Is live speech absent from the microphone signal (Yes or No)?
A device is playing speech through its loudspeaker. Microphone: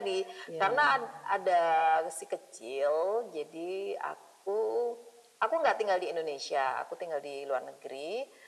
No